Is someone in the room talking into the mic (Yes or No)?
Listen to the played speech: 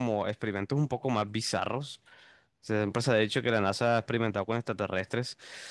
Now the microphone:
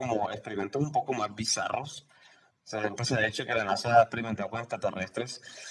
No